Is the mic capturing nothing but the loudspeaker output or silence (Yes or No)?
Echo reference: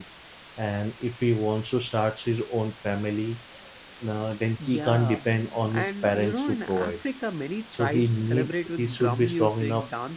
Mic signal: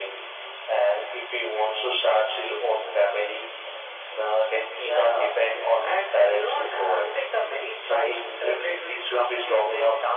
Yes